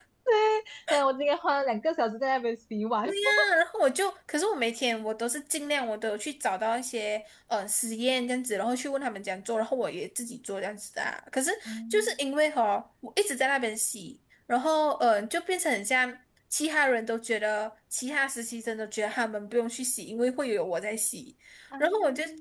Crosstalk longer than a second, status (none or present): none